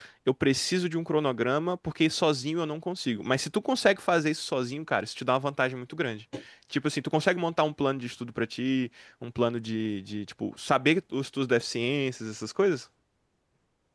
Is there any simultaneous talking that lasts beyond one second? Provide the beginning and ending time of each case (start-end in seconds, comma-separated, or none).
none